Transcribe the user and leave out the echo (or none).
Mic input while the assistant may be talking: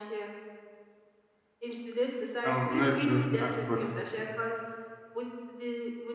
um, I'm not even sure who's to ask, but